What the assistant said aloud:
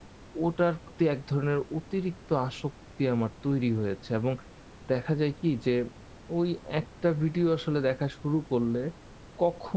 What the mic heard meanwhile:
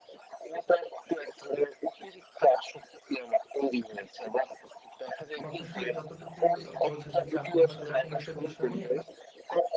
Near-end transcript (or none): কথা শুনে যতটুকু অ বোঝা যাচ্ছে আপনি হয়তোবা কোনো একটা বিষয় নিয়ে